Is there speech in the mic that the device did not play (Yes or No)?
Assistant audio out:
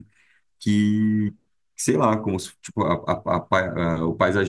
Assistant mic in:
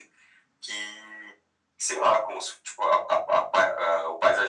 No